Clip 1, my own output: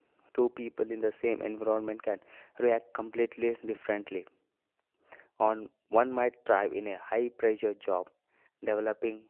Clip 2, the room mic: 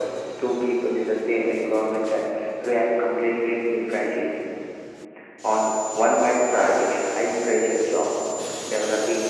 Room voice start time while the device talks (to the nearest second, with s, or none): none